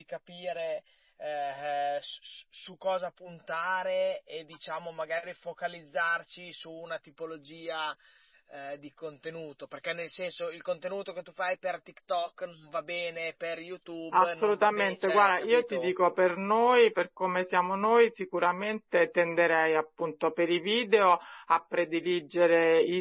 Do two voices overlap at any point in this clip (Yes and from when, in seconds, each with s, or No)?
Yes, from 14.1 s